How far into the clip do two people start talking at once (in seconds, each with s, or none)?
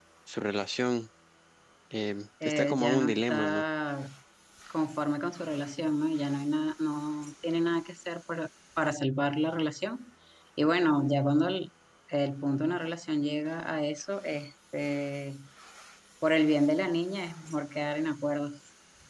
2.4 s